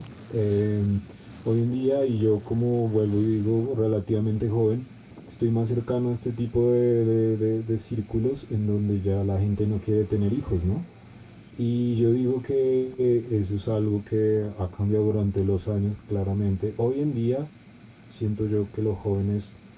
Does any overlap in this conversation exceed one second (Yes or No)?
No